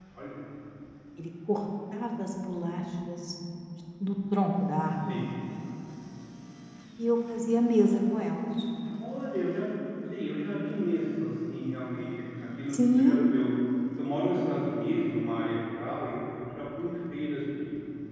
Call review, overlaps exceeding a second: none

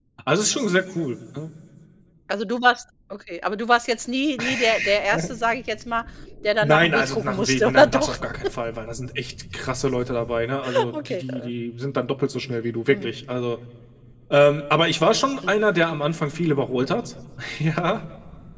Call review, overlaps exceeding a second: present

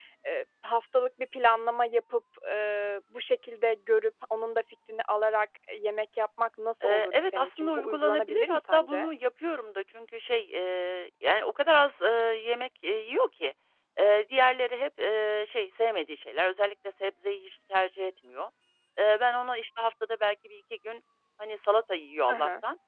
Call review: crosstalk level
present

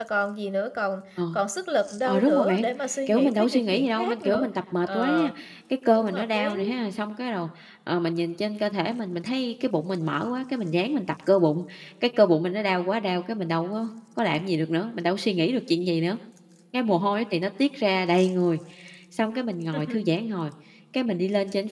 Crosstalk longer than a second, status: present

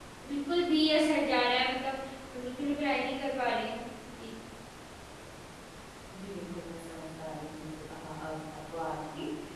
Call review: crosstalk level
none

